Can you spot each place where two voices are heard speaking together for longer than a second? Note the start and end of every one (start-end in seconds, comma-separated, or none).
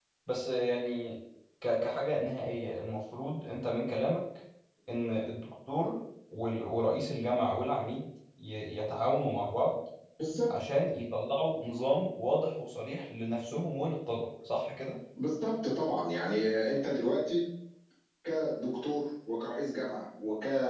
none